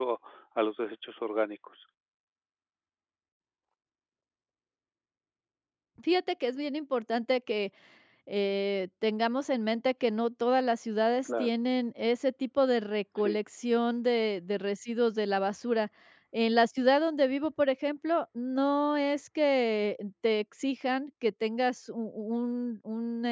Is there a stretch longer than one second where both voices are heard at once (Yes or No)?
No